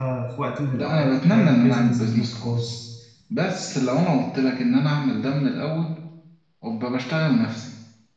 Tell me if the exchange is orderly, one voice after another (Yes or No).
No